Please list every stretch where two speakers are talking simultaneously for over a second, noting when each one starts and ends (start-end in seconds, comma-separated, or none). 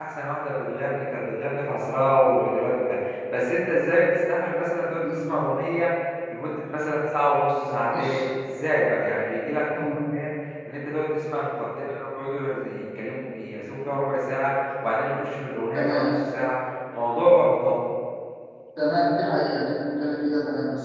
none